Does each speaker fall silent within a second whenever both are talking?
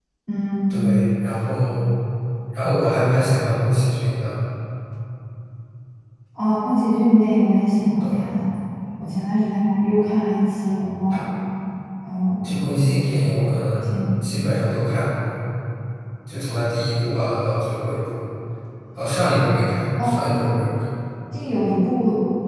Yes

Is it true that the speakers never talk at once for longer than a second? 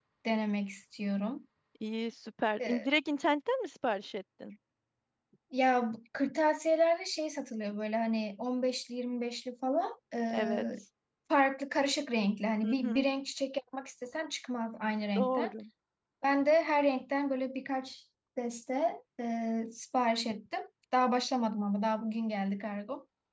Yes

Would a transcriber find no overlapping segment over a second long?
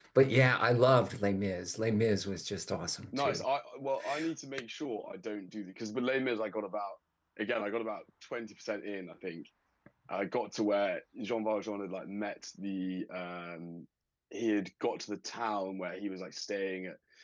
Yes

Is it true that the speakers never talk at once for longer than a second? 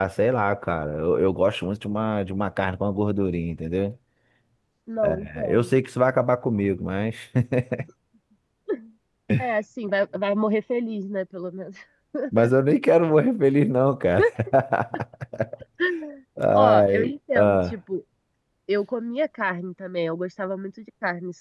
No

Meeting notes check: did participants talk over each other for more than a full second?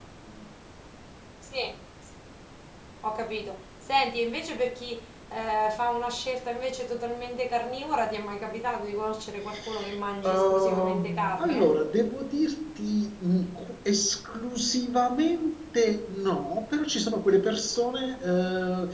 Yes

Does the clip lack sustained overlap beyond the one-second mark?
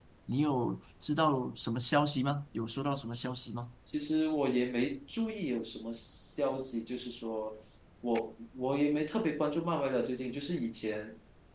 Yes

